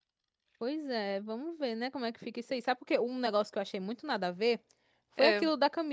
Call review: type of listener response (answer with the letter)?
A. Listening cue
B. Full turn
A